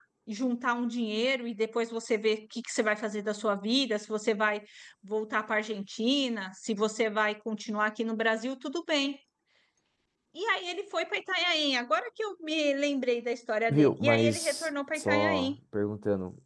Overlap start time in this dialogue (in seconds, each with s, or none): 13.7 s